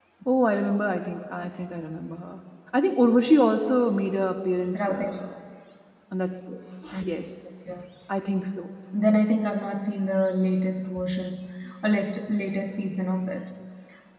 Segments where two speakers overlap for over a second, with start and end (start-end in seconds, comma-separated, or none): none